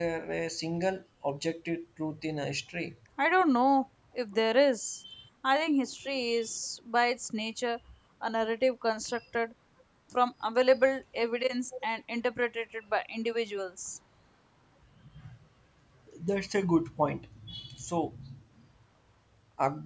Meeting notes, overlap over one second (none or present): none